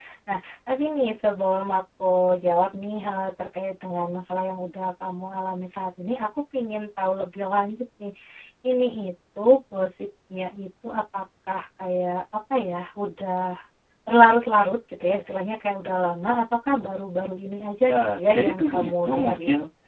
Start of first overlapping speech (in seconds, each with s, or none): 17.9 s